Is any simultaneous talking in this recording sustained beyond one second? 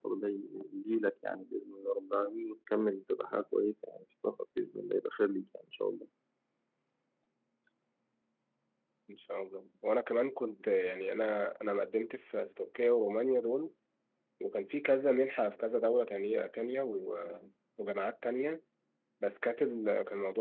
No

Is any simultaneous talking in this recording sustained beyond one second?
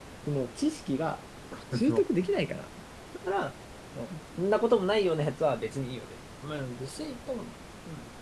No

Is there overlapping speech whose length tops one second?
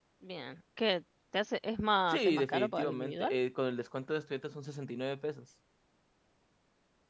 Yes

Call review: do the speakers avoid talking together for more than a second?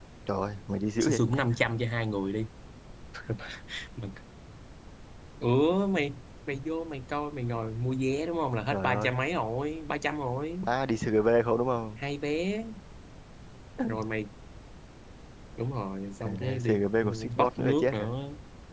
No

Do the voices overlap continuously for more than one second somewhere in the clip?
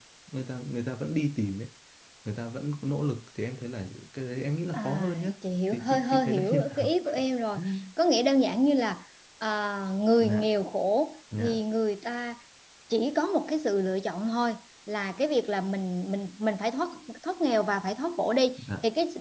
Yes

